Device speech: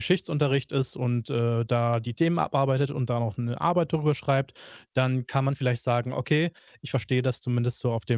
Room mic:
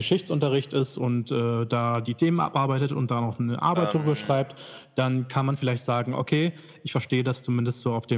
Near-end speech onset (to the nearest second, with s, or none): 4 s